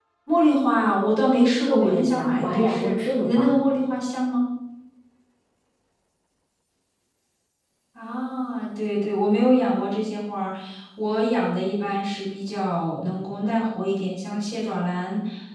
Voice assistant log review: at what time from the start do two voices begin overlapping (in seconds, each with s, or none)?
1.6 s